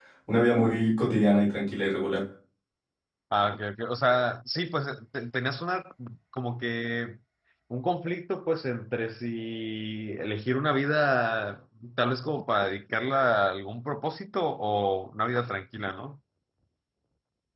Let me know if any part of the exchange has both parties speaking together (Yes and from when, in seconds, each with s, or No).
No